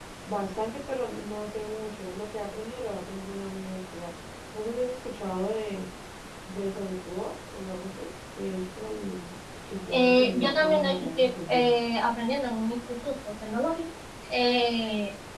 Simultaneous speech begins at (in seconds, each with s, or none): 9.9 s